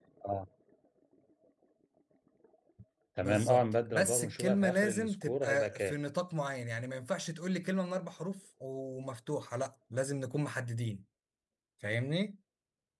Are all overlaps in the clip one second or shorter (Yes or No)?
No